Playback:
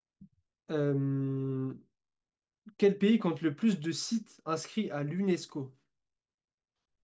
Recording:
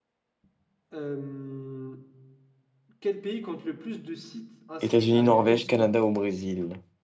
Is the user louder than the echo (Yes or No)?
Yes